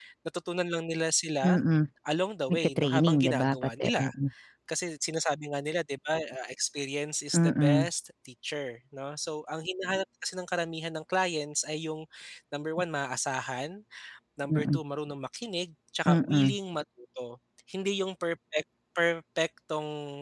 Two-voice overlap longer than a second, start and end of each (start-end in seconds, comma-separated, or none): 2.5-4.0